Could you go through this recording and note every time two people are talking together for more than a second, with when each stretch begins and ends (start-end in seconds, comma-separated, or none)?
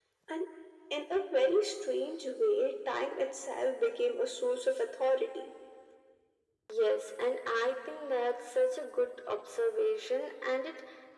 none